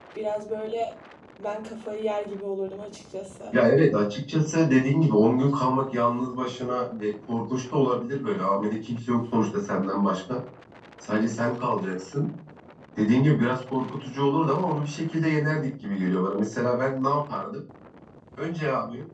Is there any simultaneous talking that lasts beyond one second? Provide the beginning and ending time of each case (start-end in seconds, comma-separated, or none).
none